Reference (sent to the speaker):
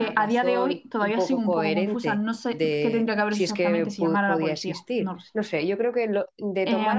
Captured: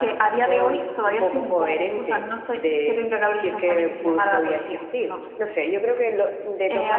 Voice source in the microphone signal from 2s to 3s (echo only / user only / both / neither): echo only